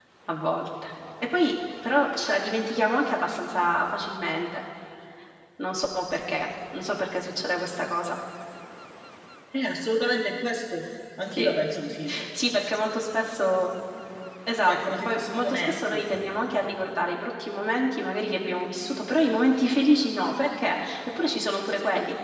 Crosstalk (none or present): present